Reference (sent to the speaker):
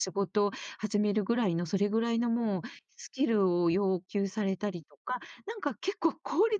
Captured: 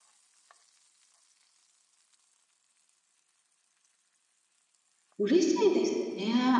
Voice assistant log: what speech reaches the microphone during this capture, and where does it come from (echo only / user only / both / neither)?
user only